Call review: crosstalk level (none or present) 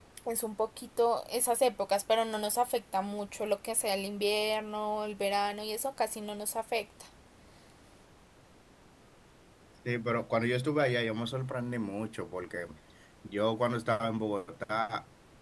none